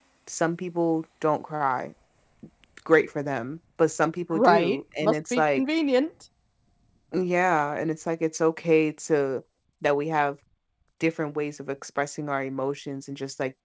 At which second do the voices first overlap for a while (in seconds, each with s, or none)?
4.3 s